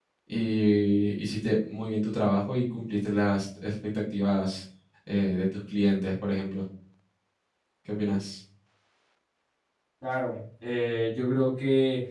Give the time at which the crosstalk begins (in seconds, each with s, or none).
none